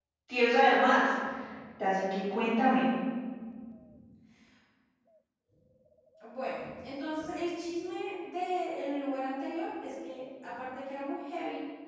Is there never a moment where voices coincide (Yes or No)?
Yes